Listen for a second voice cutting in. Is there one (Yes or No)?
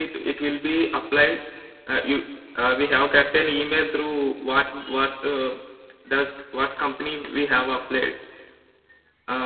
No